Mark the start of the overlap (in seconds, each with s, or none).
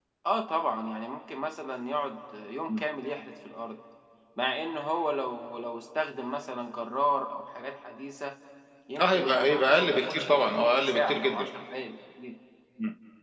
9.0 s